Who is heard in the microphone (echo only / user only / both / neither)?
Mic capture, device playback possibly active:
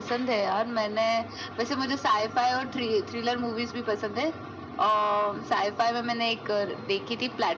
echo only